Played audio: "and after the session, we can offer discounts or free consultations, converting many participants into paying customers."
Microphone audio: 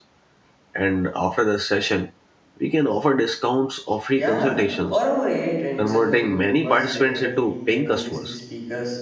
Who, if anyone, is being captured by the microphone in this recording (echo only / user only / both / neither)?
both